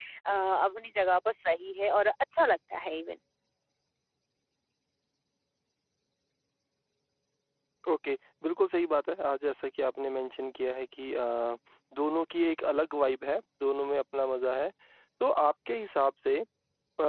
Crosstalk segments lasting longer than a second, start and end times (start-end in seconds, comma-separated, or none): none